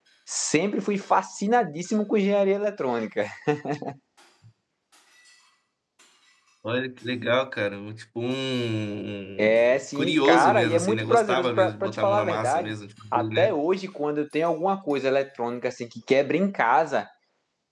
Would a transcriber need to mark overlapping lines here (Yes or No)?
Yes